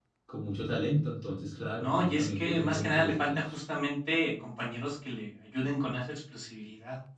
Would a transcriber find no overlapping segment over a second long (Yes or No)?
No